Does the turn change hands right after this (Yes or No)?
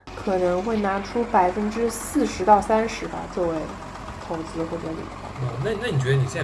Yes